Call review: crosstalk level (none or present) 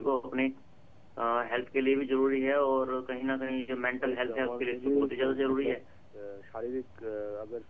present